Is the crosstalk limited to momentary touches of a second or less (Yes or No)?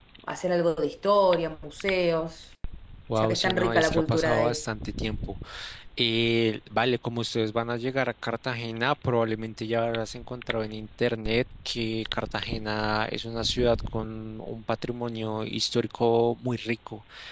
No